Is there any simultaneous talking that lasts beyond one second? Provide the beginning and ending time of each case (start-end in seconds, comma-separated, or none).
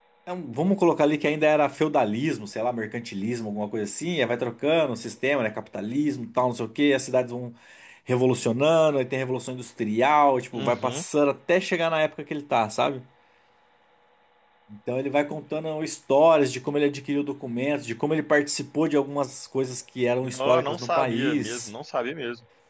20.2-21.7